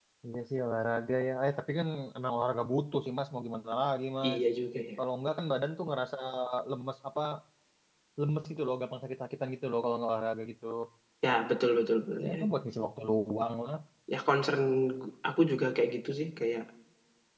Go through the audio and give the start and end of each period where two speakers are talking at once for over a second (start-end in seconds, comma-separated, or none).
none